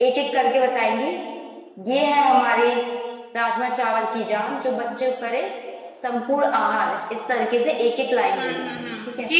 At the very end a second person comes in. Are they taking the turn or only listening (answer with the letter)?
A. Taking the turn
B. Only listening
A